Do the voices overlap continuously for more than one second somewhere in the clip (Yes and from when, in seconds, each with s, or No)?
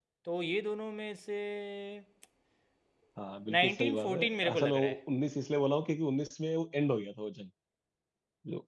Yes, from 3.6 s